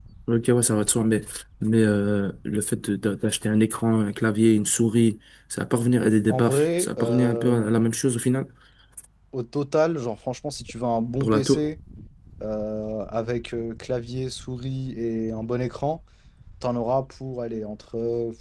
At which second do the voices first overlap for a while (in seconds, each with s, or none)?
6.3 s